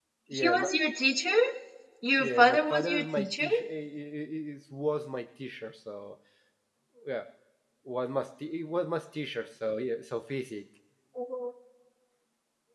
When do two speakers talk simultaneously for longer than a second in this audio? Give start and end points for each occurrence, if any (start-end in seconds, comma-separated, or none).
2.2-3.5